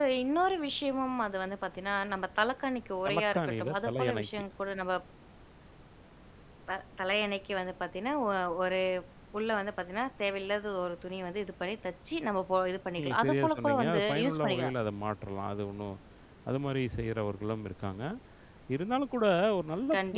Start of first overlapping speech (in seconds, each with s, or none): 3.1 s